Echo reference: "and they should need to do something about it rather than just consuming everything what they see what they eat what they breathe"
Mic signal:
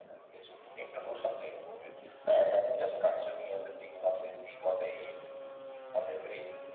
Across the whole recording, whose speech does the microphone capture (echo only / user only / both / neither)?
echo only